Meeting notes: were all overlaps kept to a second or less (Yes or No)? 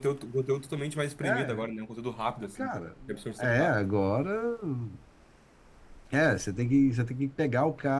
Yes